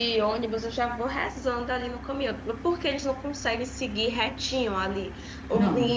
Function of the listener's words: listening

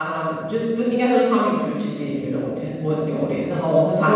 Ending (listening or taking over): taking over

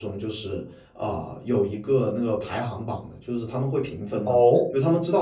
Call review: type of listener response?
listening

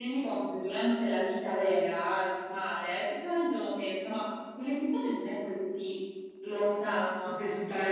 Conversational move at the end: taking over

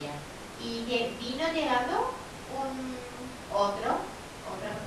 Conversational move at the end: listening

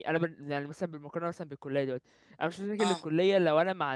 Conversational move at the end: listening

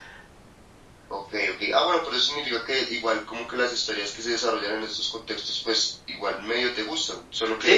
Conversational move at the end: taking over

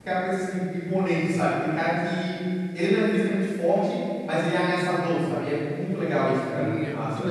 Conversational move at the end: taking over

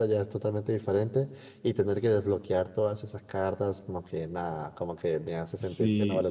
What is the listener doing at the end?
taking over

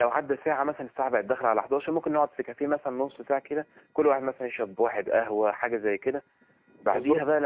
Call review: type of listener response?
listening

